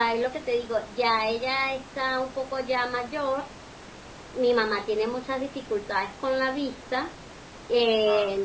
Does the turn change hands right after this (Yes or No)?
No